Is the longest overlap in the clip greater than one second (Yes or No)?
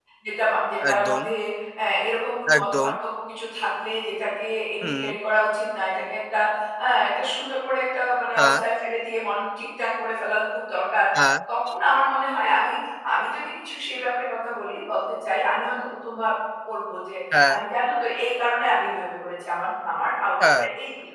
No